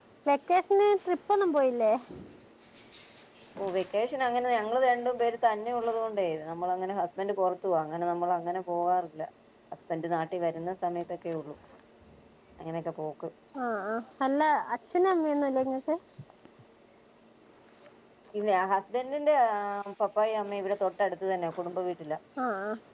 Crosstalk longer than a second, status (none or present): none